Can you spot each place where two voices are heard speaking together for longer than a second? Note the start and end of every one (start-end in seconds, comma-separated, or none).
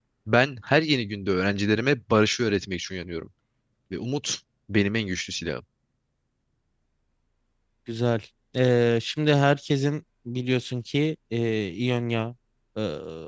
none